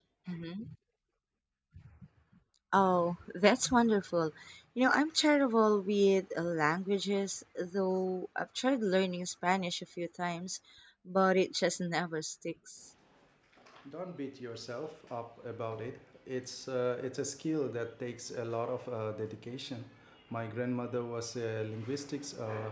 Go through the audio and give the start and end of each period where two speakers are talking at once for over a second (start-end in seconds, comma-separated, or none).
none